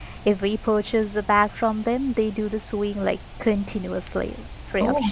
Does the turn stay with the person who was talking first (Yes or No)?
No